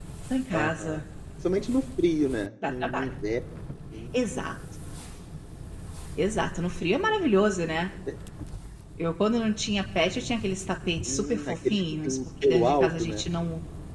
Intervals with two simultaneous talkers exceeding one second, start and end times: 11.1-13.2

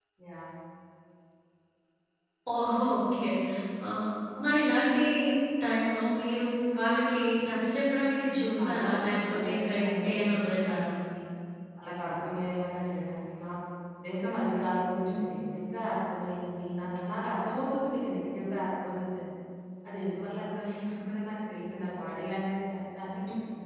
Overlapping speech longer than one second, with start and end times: 8.2-10.9

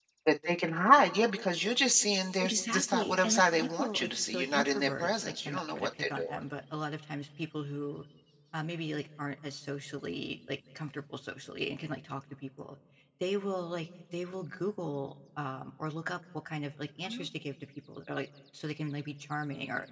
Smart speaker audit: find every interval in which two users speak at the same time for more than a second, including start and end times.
2.4-6.4

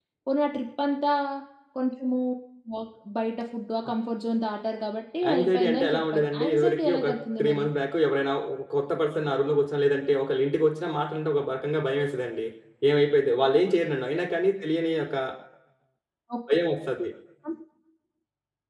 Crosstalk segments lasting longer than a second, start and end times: 5.3-7.0

